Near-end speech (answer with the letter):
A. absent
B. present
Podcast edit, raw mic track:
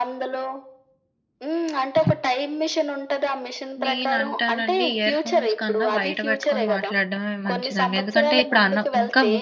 B